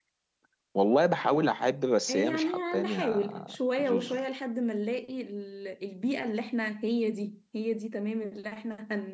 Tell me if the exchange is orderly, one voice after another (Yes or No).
No